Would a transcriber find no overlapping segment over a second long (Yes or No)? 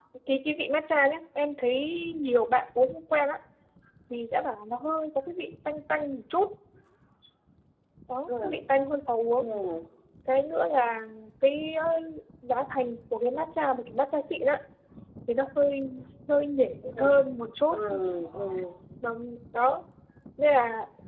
Yes